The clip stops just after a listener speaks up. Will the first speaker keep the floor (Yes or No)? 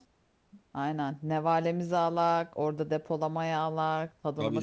No